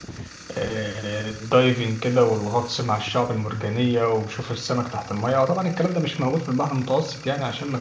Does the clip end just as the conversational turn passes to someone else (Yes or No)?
No